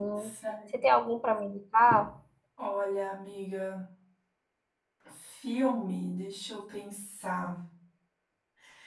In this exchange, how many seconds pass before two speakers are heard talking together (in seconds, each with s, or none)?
none